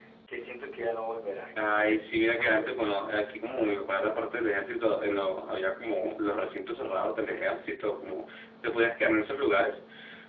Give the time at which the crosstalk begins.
2 s

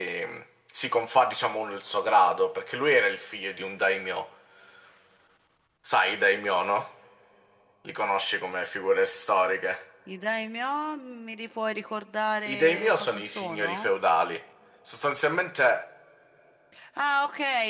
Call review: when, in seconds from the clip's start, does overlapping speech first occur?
12 s

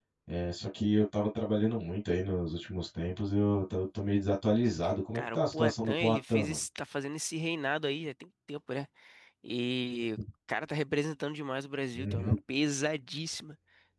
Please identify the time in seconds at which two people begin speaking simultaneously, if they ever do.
5 s

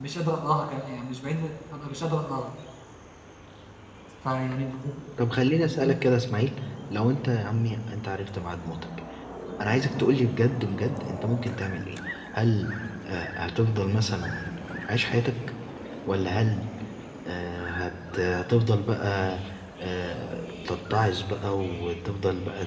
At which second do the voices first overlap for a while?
none

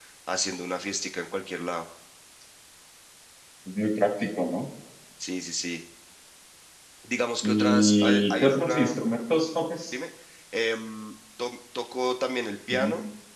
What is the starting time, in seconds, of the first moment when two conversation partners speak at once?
7 s

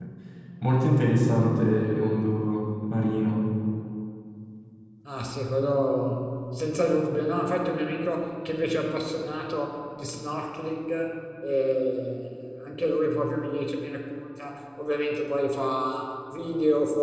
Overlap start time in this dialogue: none

